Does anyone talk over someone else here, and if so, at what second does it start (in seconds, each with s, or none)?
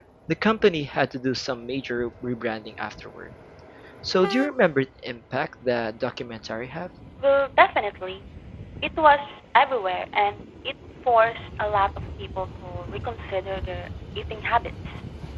none